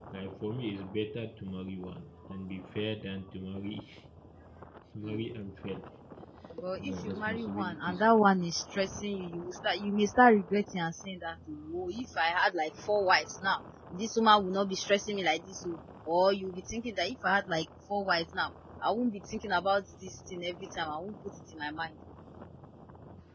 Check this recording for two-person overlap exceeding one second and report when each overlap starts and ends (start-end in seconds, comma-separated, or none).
6.8-8.0